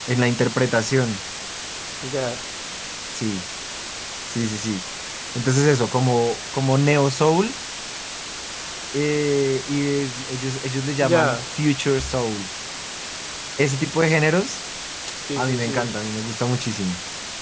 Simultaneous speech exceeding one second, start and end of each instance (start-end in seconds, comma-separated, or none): none